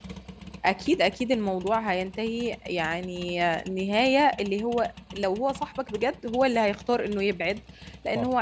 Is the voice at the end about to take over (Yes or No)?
No